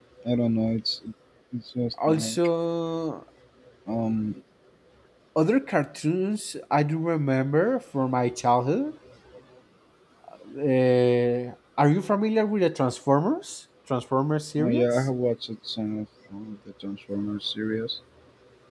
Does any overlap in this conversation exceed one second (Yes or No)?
No